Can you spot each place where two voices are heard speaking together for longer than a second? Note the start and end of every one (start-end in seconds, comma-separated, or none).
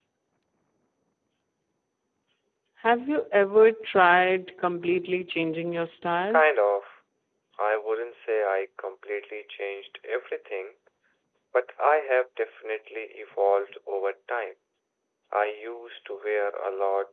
none